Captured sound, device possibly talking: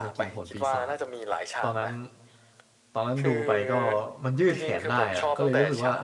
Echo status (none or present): present